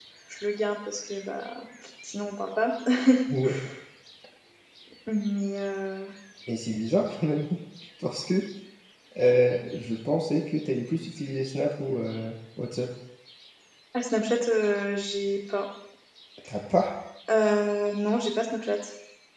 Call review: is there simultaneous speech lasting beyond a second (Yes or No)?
No